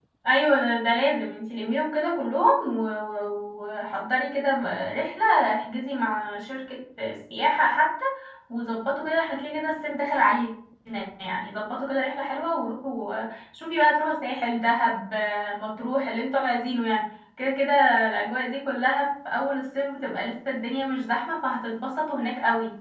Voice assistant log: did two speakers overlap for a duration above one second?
No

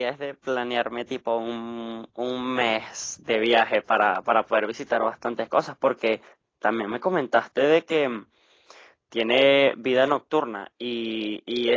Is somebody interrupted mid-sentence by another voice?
No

